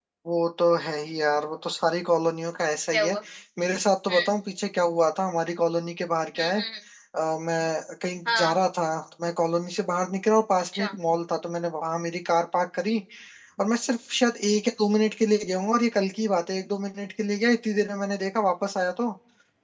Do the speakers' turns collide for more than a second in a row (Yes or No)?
No